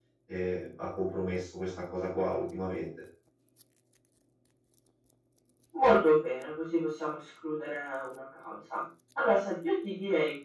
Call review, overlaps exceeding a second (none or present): none